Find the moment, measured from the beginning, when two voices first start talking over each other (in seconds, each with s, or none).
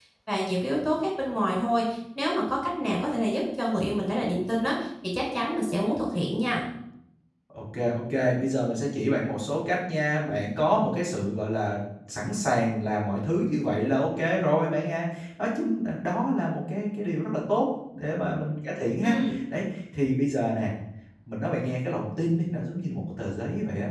none